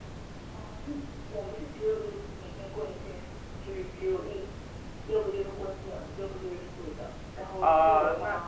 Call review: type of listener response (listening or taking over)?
taking over